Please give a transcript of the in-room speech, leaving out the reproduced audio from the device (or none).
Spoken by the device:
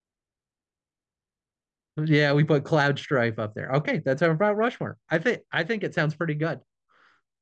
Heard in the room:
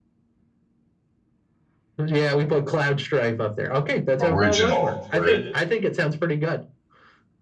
original, right?